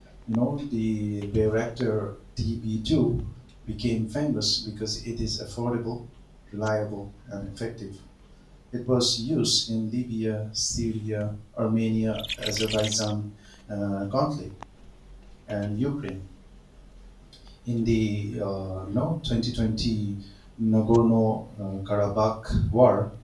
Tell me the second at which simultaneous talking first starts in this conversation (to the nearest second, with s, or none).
none